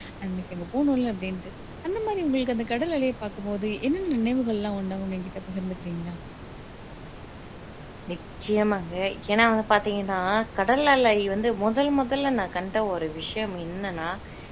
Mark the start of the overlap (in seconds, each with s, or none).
none